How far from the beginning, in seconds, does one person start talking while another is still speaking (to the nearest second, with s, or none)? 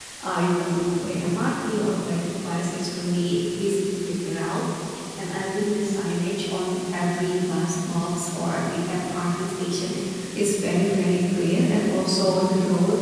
none